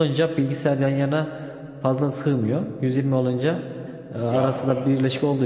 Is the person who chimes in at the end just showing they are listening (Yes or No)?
Yes